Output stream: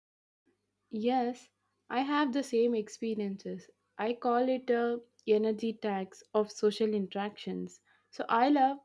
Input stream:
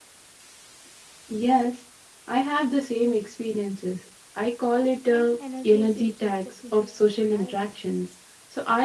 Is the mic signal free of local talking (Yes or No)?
No